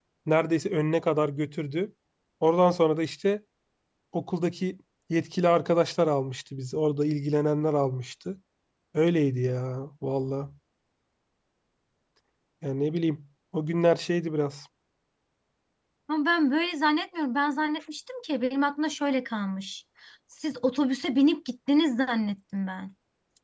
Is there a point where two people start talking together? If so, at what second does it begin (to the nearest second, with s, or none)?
none